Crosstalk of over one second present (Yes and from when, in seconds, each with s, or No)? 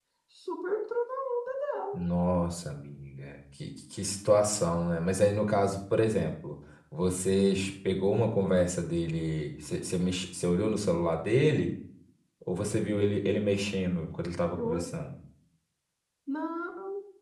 No